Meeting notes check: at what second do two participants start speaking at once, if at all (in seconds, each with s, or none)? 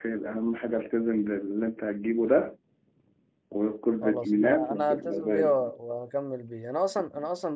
4.0 s